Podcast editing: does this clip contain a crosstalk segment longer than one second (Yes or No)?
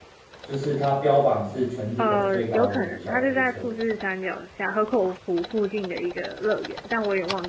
Yes